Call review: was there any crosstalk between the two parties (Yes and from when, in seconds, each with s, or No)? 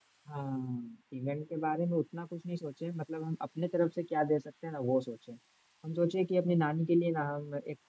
No